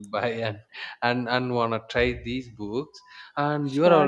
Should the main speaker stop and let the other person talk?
No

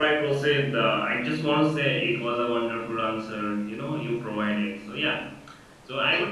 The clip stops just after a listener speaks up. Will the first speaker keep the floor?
Yes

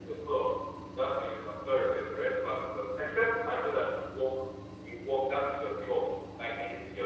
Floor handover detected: No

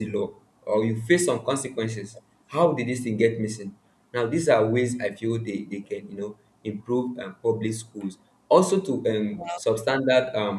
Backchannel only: Yes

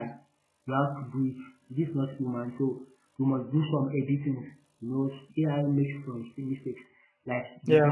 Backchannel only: Yes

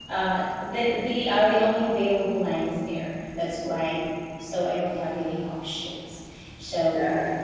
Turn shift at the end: Yes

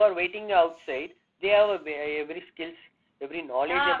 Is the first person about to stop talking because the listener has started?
Yes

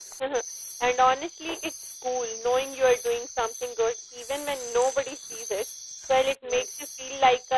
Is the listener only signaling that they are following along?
Yes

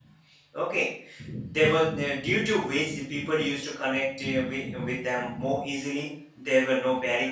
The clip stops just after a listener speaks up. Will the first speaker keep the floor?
Yes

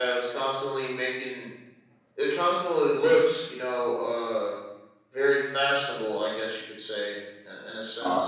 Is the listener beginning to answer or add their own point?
No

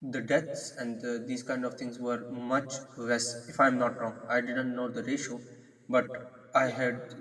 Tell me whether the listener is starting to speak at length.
No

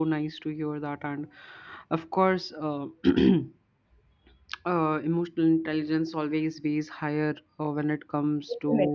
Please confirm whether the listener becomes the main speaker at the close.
No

